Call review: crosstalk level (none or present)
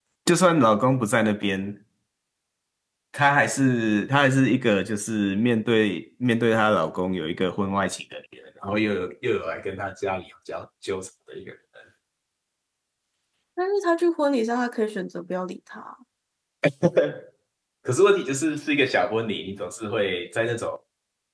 none